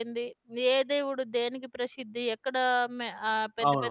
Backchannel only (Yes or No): Yes